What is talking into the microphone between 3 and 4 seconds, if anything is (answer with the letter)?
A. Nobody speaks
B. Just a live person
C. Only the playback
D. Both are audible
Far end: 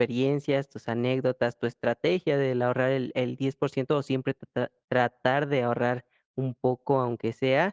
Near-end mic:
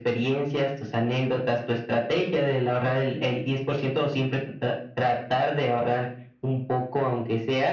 C